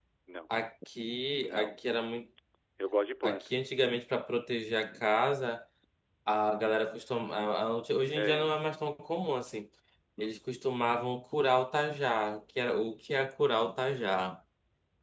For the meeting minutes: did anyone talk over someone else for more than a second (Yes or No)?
No